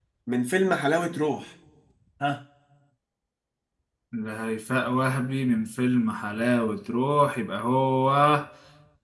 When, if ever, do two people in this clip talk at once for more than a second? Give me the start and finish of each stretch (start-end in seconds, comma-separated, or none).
none